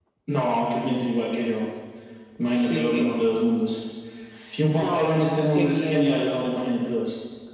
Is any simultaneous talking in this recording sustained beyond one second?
Yes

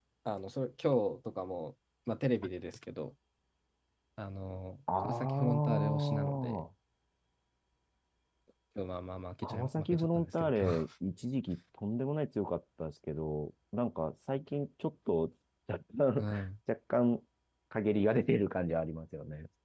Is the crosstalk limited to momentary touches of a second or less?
No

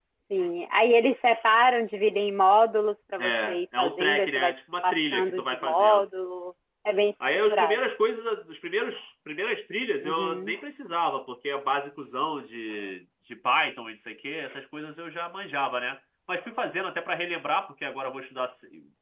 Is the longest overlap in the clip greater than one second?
Yes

